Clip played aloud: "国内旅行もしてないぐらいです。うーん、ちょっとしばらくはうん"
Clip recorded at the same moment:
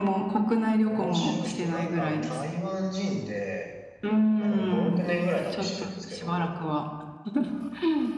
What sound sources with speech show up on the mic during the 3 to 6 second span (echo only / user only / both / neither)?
both